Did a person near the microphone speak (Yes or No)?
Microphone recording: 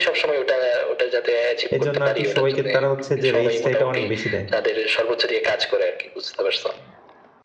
Yes